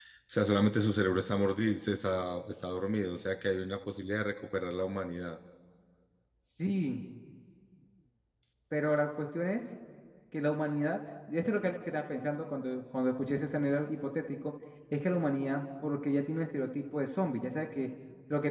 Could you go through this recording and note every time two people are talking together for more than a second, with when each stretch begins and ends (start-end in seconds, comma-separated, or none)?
none